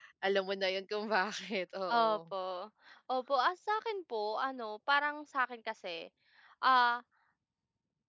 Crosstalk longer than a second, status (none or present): none